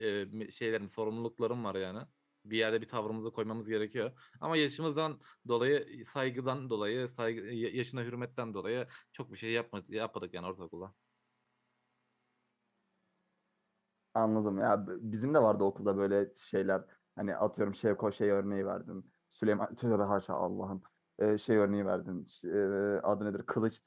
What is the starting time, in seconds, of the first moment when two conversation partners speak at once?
none

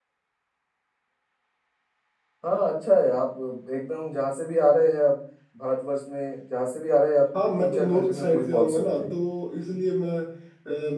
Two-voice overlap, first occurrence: 7.3 s

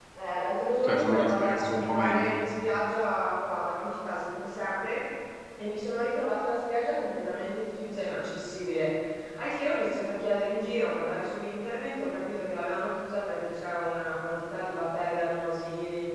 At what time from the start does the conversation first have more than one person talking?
0.8 s

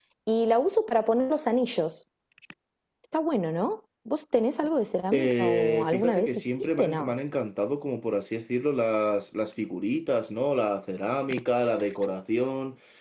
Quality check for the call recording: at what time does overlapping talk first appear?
5.1 s

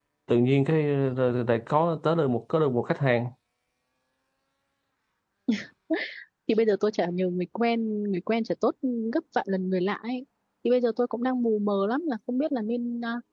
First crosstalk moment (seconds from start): none

